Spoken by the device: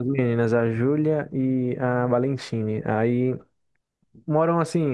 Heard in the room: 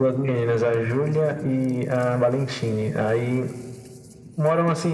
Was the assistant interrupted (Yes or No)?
No